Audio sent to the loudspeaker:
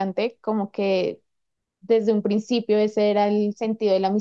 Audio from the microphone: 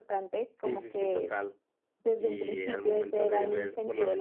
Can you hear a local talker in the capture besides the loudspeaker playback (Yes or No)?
Yes